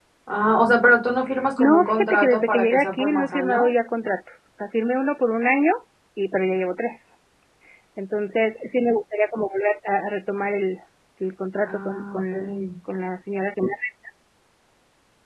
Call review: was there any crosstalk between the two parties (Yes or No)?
Yes